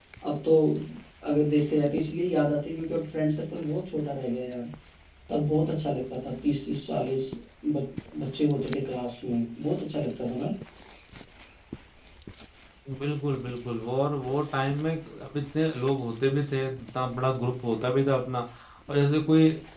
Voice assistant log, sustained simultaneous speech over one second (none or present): none